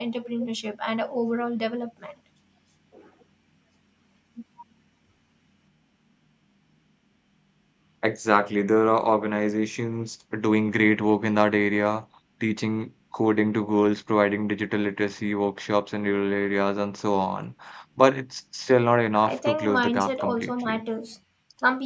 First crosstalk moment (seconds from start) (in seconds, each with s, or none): 19.2 s